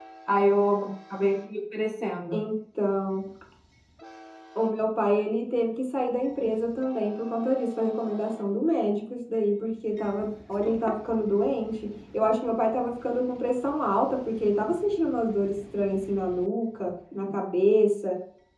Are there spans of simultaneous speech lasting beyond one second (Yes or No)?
No